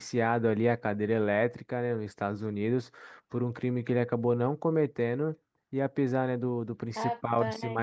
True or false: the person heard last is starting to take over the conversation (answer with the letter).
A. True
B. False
B